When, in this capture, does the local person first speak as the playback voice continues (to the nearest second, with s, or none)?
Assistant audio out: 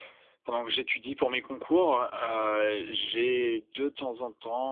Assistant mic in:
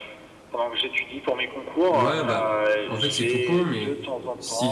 2 s